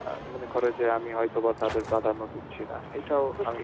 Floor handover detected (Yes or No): Yes